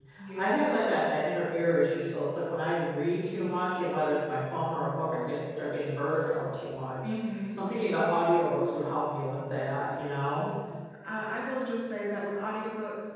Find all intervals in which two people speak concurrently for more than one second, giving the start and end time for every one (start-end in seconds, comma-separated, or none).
none